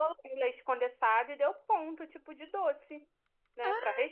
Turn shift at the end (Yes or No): Yes